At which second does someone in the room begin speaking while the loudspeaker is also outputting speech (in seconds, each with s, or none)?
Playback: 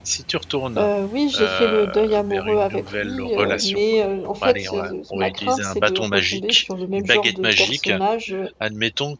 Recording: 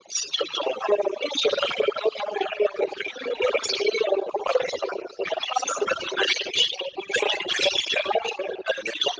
none